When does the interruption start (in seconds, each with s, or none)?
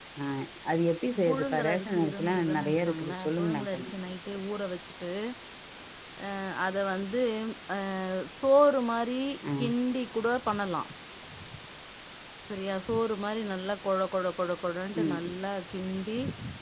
1.3 s